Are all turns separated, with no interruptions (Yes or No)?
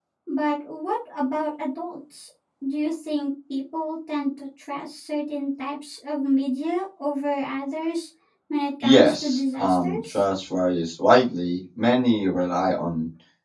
No